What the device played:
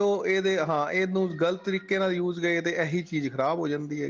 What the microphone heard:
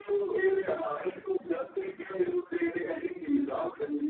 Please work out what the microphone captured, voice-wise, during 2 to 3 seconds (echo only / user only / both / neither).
echo only